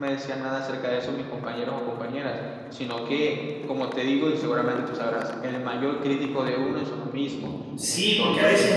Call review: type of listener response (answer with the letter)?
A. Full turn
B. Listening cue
A